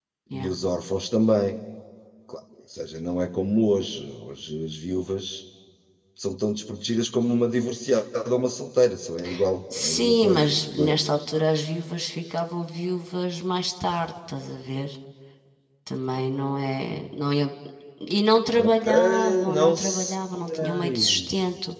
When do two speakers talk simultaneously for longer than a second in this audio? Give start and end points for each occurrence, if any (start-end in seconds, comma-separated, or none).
9.7-11.0, 18.5-21.3